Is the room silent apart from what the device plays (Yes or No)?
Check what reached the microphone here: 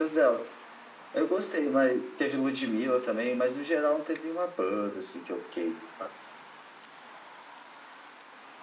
Yes